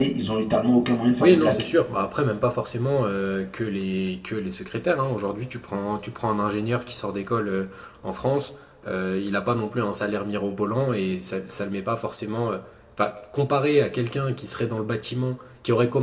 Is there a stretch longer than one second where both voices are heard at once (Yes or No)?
No